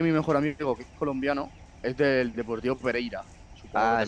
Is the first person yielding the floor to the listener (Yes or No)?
Yes